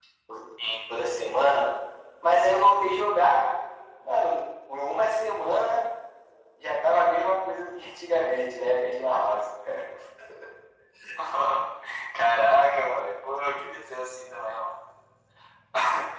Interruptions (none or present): none